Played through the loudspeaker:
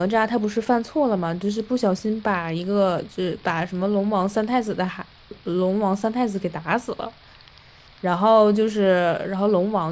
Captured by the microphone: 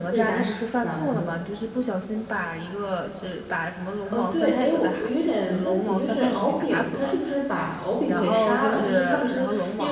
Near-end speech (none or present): present